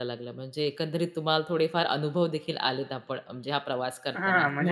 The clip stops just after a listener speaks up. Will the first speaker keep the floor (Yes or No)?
No